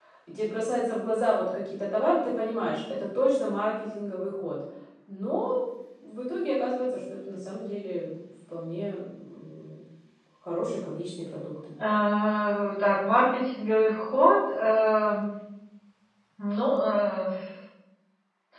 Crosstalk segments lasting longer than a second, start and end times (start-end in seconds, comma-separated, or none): none